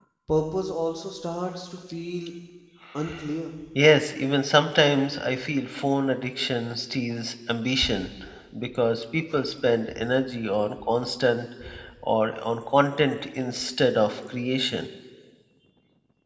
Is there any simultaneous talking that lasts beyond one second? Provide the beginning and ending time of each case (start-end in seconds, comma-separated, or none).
none